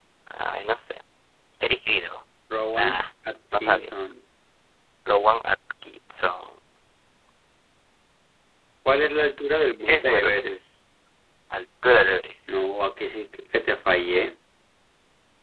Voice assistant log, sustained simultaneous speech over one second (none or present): none